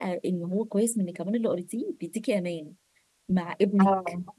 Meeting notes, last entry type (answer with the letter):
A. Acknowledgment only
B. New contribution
A